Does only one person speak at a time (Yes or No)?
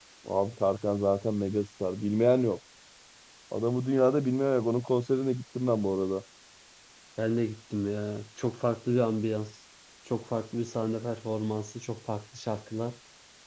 Yes